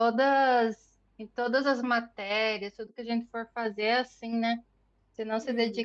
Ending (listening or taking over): listening